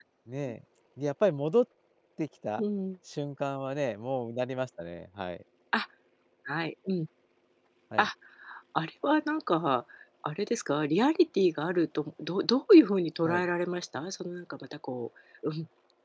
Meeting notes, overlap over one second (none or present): none